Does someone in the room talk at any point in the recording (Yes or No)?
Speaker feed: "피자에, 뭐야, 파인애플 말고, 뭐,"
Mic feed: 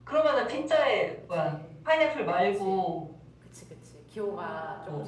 Yes